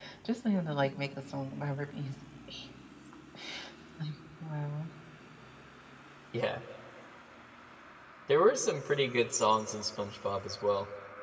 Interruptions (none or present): none